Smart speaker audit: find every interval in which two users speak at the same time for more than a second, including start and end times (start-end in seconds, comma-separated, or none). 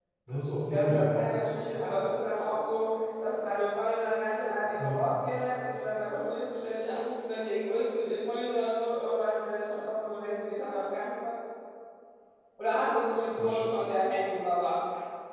none